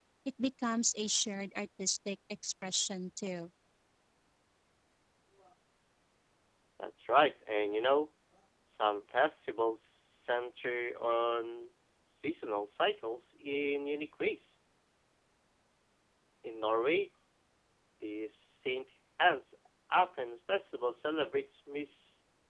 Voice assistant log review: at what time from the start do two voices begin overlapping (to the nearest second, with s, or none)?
none